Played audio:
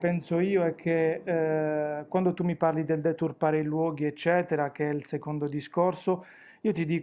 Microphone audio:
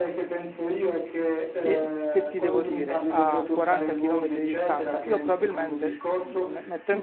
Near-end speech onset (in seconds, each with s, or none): 1.6 s